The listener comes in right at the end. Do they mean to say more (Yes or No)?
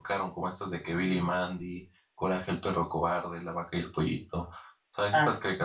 No